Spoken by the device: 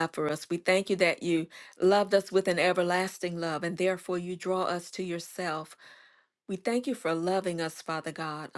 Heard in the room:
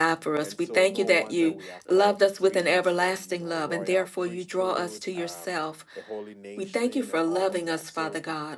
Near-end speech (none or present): present